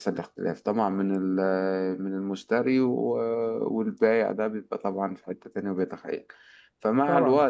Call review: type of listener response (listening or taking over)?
listening